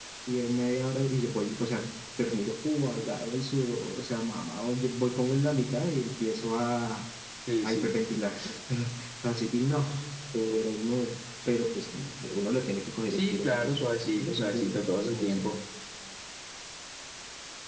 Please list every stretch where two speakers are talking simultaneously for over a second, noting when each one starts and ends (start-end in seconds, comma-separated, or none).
13.1-15.4